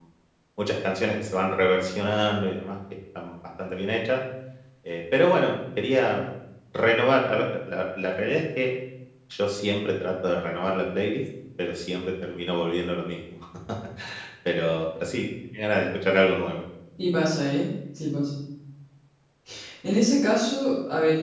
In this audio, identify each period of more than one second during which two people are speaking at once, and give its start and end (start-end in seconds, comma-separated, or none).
none